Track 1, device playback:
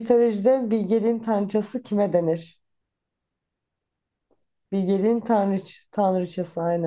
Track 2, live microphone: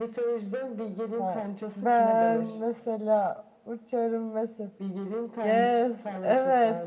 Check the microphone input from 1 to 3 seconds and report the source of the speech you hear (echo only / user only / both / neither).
both